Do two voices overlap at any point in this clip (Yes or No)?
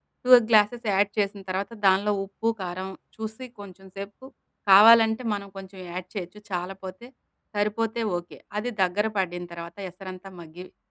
No